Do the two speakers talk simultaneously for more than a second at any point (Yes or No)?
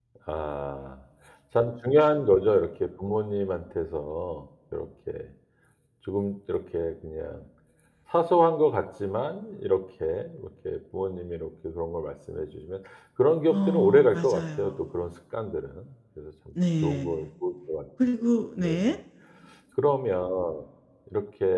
Yes